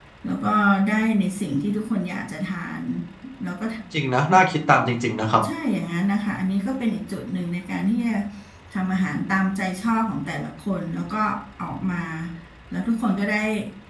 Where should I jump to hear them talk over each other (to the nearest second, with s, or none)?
none